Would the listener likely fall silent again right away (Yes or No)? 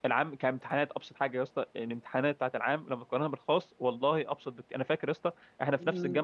Yes